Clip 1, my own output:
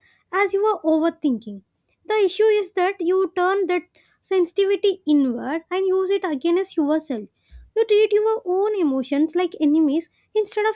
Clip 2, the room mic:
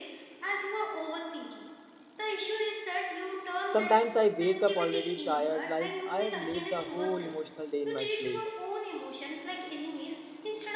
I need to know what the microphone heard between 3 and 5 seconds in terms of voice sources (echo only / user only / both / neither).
both